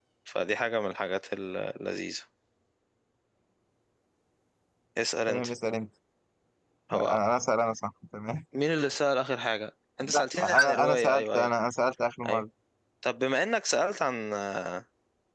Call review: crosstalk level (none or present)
present